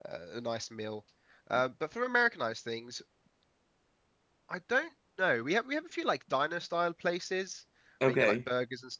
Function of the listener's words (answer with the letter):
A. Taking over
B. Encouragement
B